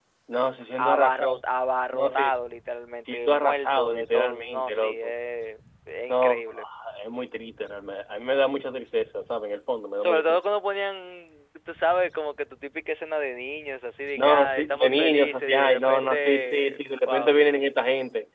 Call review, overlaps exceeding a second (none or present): present